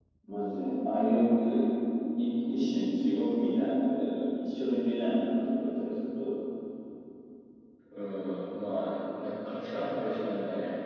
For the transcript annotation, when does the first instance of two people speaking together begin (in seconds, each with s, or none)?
none